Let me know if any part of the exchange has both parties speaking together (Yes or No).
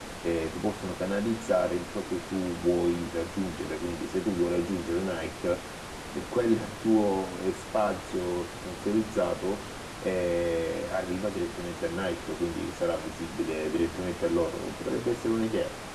No